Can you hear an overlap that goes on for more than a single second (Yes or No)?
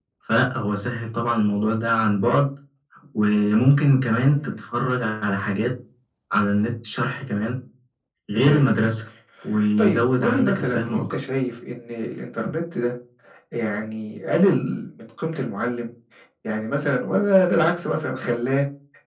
Yes